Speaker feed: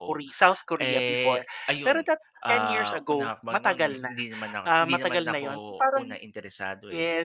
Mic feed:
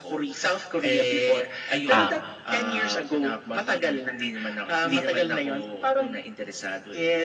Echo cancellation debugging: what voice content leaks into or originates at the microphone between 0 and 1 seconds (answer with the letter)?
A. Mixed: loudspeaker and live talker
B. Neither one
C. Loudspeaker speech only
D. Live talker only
C